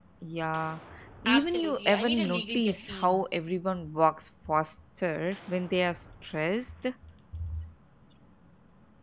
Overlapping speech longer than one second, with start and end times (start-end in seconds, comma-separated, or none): 1.3-3.2